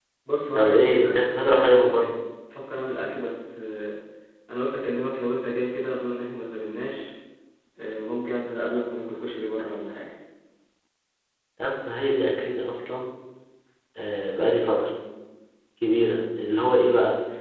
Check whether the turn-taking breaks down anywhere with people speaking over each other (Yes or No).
Yes